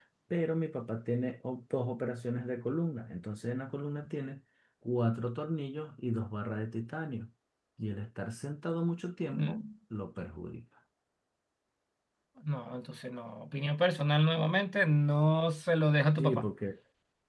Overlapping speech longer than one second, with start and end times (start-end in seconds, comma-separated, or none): none